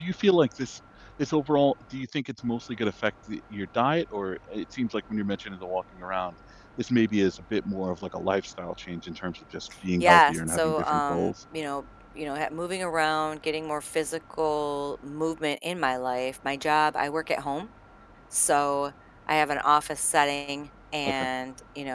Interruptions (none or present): present